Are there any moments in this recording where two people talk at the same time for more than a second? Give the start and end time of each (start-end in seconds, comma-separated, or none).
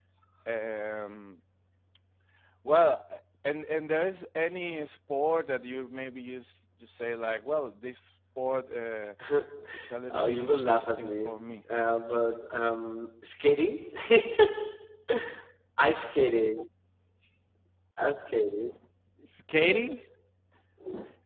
10.1-11.4